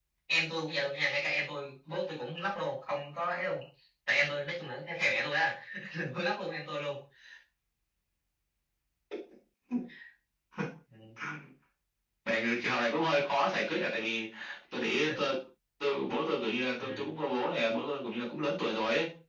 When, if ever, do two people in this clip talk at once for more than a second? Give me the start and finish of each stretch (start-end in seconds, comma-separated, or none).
none